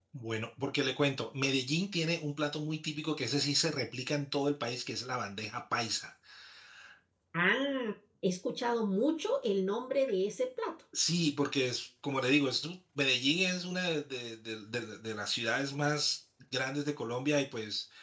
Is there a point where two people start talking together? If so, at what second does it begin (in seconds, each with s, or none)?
none